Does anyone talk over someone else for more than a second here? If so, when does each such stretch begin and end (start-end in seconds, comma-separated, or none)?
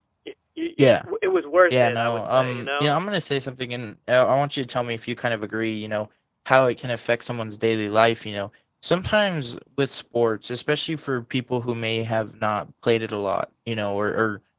1.7-2.9